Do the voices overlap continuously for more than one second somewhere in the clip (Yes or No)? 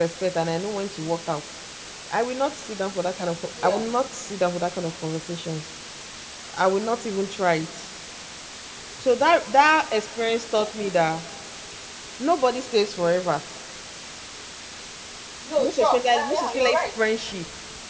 Yes